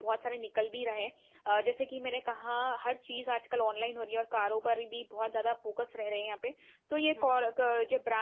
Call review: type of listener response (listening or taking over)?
listening